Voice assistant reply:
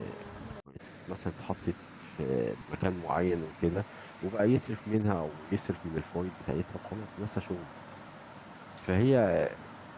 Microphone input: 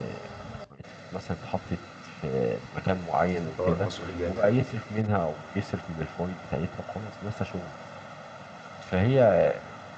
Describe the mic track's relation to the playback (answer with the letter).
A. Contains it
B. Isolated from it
A